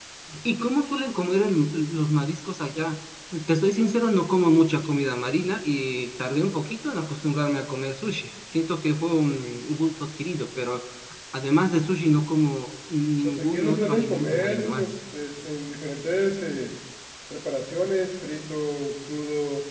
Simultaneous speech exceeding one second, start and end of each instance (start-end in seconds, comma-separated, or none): 13.2-14.8